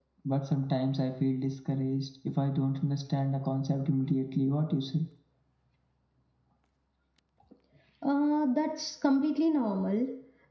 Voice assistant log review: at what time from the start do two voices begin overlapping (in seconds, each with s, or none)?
none